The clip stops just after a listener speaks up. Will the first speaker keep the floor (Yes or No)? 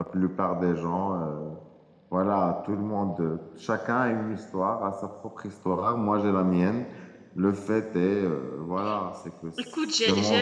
No